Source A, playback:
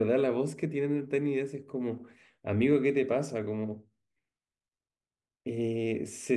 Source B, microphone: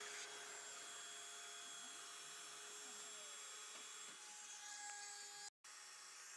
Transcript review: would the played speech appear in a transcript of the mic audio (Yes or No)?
No